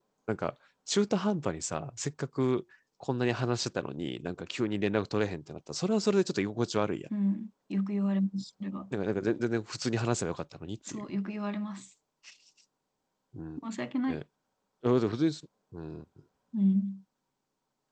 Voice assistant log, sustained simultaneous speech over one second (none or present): none